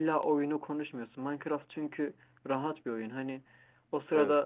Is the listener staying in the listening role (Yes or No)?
Yes